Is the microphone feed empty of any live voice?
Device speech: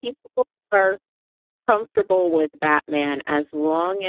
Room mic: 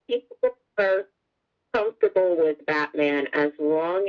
Yes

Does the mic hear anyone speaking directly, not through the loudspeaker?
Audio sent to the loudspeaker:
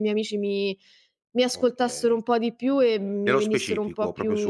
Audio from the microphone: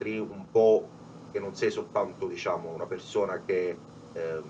Yes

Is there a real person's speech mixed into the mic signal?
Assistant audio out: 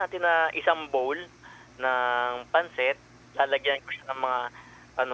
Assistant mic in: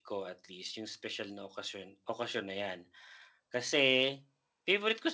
Yes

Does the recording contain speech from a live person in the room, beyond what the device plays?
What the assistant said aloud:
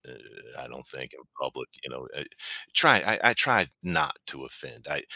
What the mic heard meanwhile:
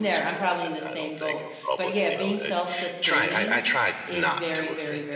Yes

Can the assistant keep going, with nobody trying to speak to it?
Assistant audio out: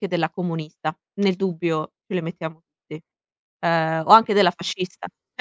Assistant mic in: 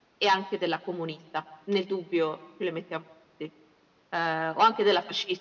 Yes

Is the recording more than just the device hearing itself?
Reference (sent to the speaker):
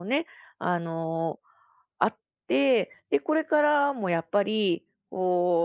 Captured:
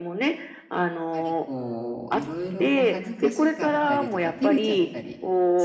Yes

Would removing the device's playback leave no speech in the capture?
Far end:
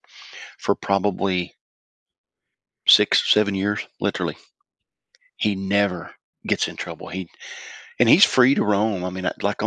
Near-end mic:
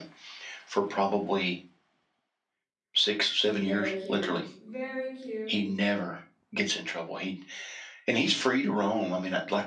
No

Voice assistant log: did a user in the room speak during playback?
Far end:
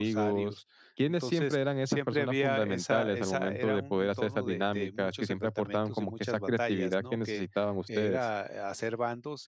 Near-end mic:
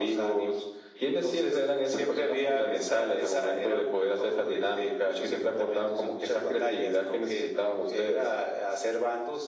No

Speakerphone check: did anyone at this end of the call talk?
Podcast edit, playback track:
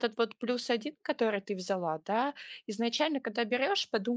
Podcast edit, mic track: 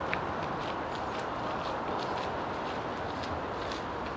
No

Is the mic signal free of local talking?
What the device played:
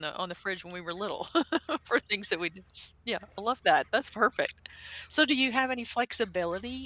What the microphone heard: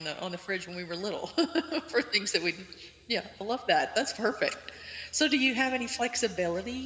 Yes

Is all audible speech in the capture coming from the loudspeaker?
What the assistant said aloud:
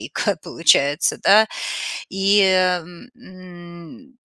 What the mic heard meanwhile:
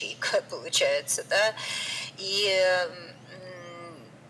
Yes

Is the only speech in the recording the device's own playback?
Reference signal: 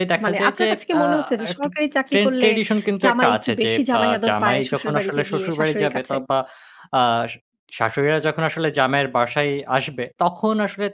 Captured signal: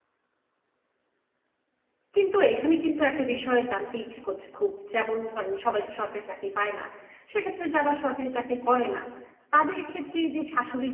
No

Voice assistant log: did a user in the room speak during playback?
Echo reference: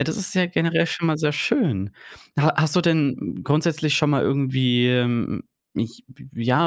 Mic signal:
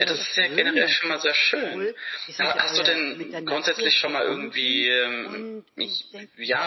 Yes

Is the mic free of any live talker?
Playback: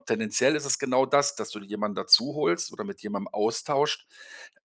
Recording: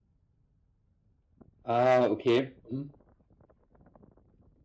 No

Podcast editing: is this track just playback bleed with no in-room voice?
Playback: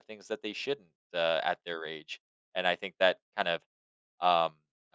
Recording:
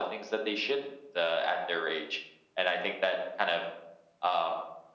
Yes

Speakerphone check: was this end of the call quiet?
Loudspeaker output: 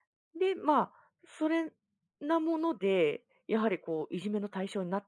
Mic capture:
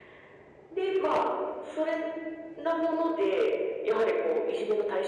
Yes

